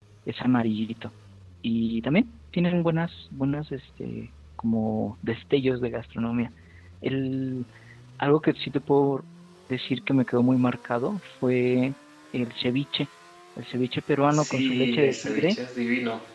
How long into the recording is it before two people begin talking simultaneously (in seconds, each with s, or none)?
14.3 s